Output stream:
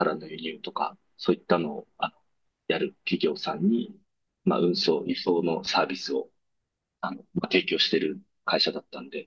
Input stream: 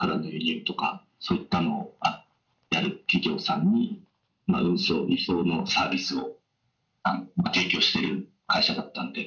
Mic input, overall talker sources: echo only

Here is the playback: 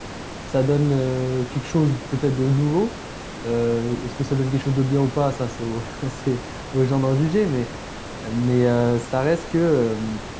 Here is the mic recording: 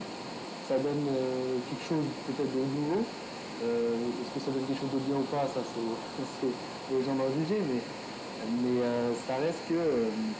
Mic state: echo only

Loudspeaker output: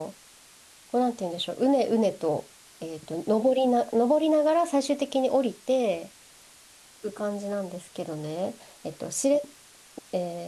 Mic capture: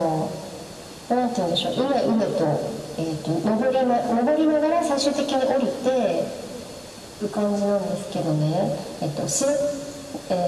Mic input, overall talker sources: echo only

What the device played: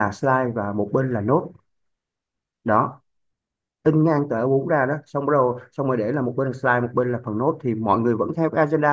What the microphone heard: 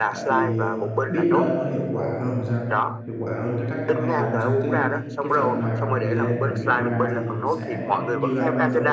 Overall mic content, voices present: both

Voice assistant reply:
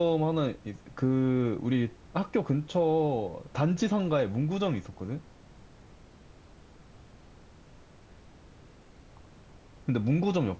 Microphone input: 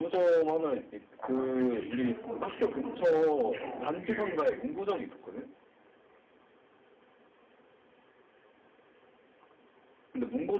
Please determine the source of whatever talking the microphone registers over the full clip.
both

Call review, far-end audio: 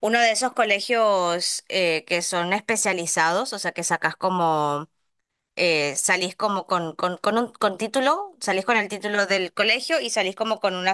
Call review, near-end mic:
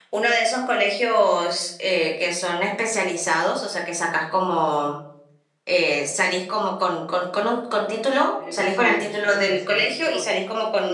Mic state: both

